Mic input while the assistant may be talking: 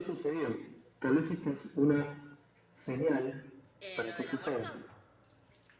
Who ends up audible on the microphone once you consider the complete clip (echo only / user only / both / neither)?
both